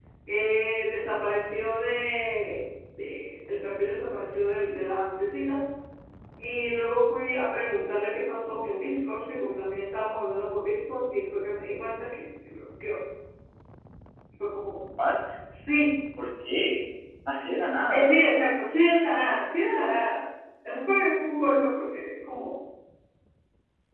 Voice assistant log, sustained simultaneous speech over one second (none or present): none